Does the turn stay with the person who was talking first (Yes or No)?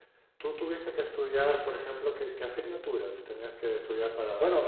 No